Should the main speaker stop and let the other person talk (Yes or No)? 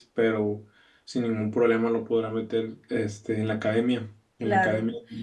Yes